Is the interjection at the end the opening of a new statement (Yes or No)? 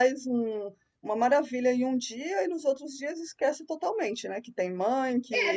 Yes